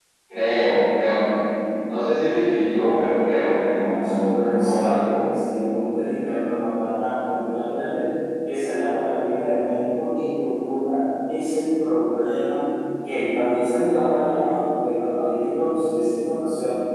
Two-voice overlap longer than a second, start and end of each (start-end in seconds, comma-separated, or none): 3.8-5.2